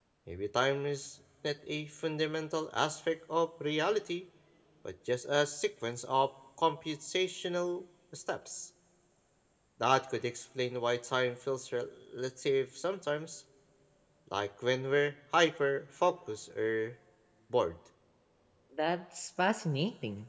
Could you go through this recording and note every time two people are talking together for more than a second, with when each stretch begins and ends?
none

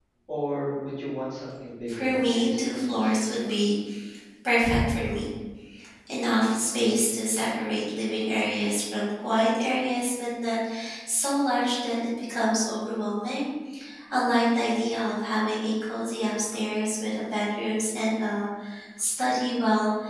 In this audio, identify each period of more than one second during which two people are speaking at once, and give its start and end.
1.9-3.2

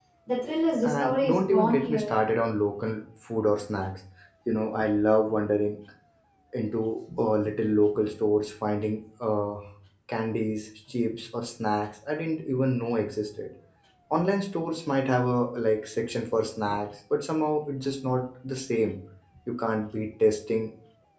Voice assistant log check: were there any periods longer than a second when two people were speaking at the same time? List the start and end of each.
0.8-2.1

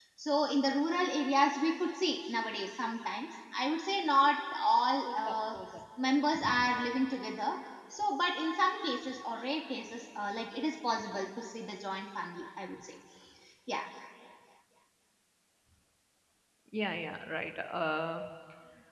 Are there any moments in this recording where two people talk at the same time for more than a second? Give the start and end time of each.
none

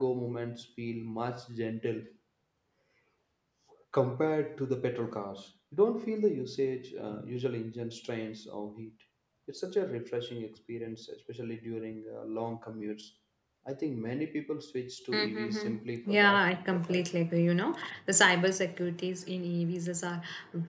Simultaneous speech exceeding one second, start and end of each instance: 15.1-17.1

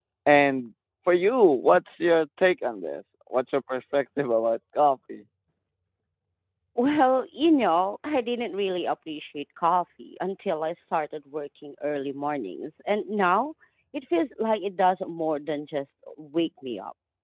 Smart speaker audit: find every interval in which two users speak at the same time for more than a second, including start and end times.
none

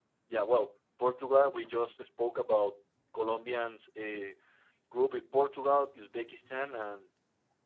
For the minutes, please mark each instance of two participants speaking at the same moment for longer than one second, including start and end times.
none

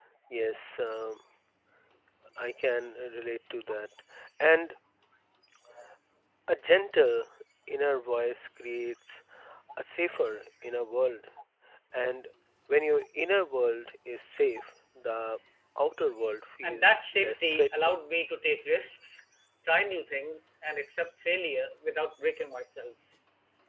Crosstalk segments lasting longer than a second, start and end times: 16.6-18.0

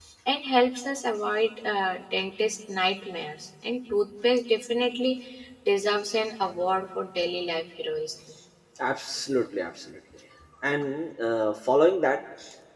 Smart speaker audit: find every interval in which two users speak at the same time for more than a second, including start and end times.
none

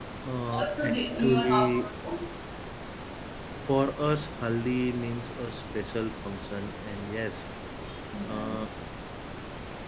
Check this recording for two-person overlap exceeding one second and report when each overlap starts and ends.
0.5-1.7

